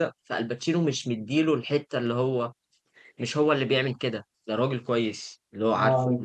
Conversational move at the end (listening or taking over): listening